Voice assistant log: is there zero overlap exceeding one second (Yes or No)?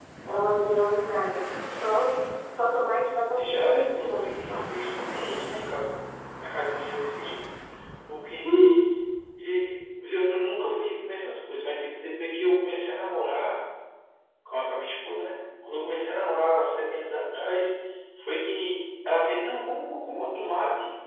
No